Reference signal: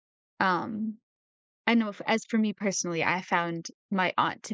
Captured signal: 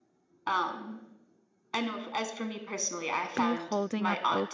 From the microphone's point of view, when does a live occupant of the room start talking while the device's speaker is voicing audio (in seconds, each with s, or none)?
3.4 s